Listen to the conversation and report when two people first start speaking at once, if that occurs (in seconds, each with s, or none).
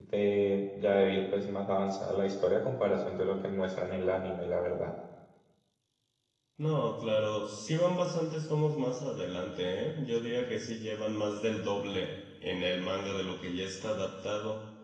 none